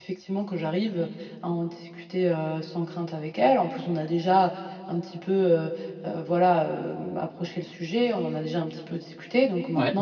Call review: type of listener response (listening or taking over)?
listening